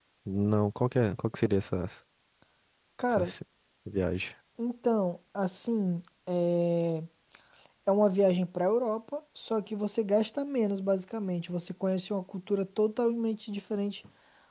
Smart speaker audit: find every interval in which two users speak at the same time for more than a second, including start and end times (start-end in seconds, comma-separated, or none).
none